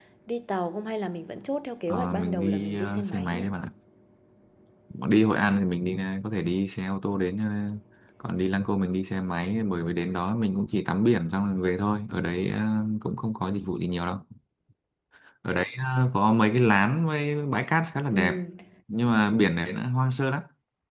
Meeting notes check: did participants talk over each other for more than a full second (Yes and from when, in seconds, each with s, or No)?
Yes, from 1.9 s